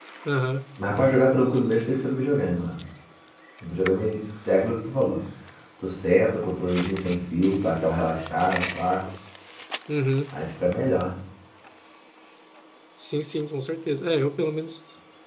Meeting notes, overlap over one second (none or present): none